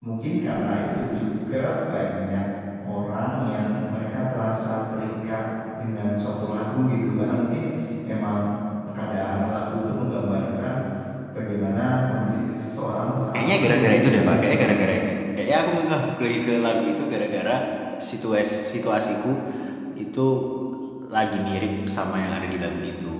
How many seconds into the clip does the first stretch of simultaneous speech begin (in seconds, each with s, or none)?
13.3 s